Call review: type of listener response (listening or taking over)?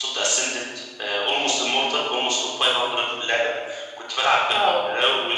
listening